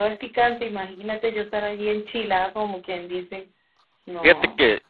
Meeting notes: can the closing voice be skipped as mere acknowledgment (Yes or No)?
No